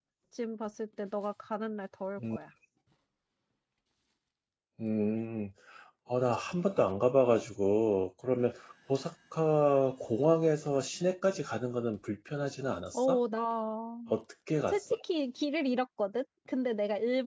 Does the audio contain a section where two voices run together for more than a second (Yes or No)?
No